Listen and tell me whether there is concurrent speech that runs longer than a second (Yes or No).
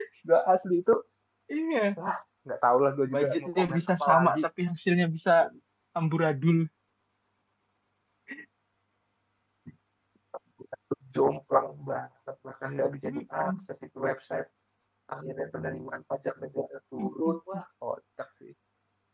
Yes